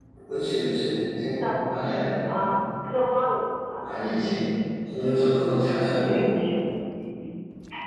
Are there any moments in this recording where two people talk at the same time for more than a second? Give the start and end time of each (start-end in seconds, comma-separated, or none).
none